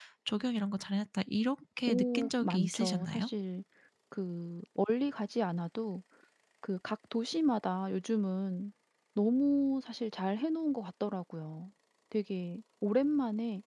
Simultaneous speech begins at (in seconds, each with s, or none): 1.8 s